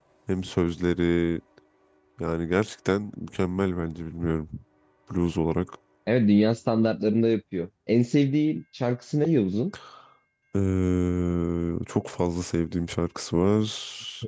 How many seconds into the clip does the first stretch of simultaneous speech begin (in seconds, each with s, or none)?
none